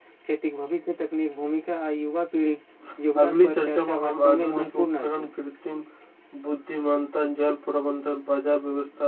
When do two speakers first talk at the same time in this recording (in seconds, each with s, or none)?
3.2 s